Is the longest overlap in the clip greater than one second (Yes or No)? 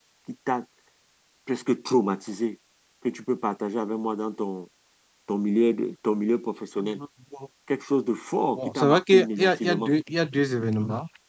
Yes